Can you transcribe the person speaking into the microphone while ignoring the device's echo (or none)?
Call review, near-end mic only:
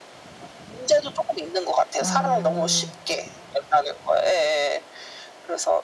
아.